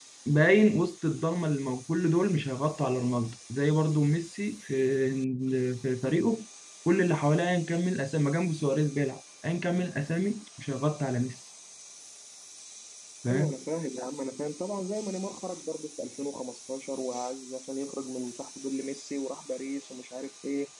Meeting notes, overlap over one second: none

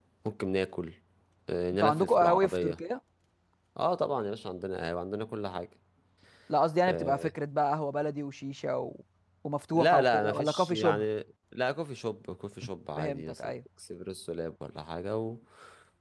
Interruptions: present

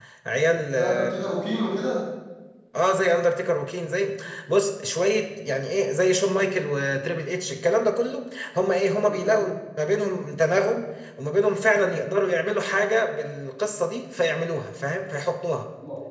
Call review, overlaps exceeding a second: none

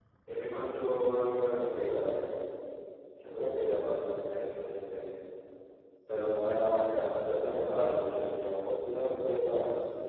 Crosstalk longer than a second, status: none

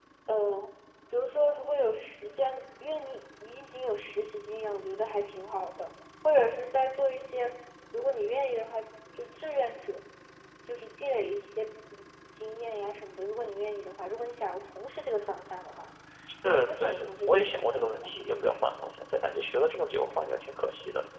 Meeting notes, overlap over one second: present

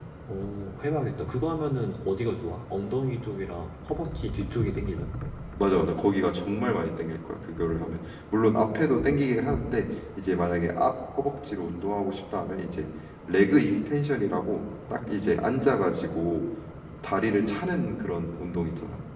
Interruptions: none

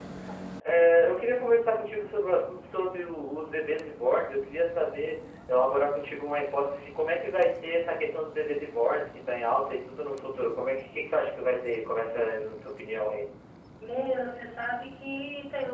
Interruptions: none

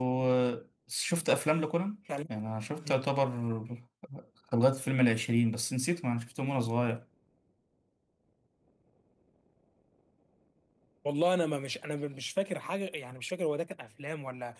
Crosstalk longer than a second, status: none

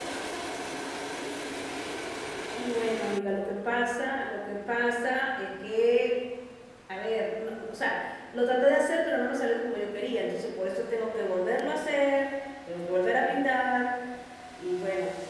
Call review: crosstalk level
none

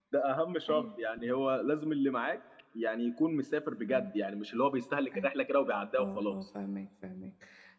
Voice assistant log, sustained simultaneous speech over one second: none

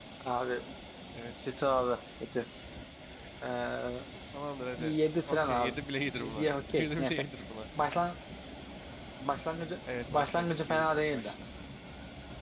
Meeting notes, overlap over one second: present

